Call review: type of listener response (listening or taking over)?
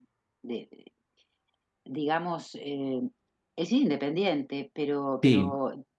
listening